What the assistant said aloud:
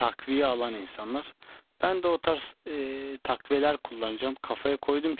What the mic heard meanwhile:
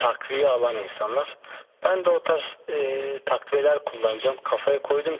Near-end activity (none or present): none